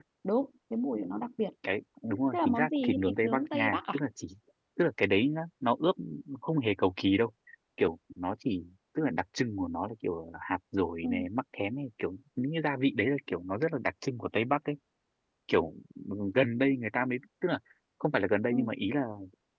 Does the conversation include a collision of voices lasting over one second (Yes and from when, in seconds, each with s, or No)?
Yes, from 2.3 s